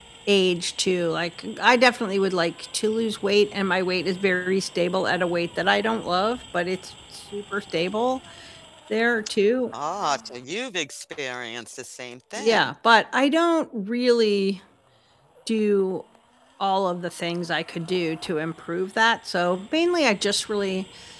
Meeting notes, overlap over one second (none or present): none